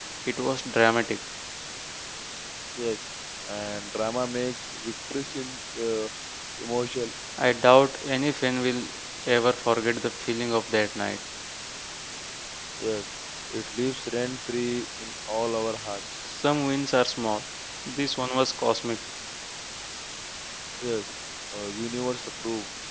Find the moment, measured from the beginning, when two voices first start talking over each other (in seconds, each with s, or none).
none